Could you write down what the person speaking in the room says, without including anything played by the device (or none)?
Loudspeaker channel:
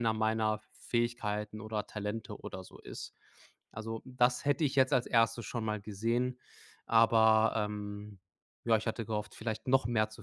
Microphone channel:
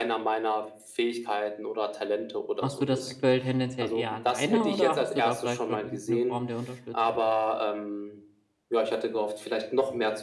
Machst du das aktuell tendenziell eher alleine oder hast du da vielleicht schon irgendeine Form der Unterstützung?